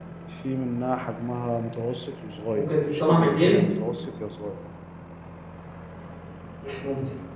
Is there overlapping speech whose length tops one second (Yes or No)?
Yes